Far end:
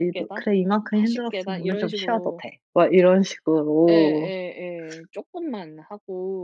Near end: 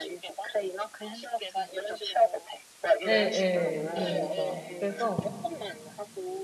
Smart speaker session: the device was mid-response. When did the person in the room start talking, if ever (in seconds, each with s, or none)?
3.1 s